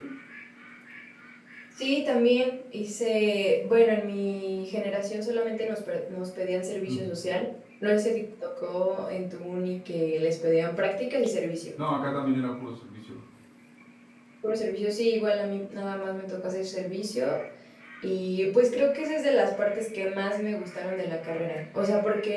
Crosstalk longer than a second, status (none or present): none